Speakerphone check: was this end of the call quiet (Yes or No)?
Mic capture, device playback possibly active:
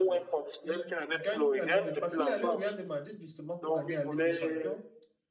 No